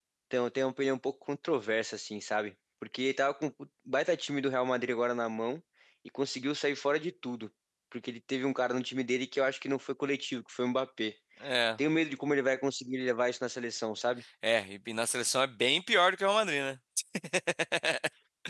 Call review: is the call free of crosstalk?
Yes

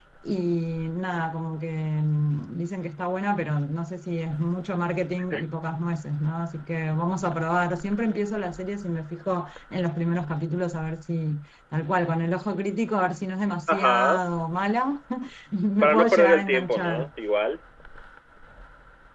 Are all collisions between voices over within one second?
No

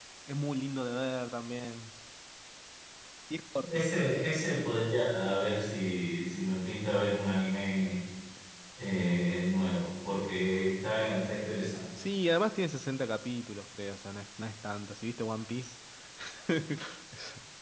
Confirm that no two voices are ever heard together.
Yes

